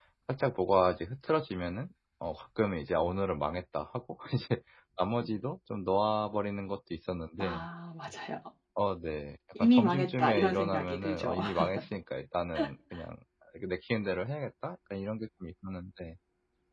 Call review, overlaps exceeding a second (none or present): present